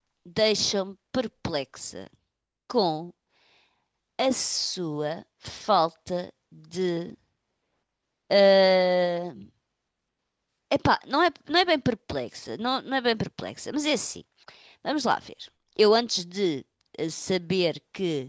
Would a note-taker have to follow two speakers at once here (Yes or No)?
No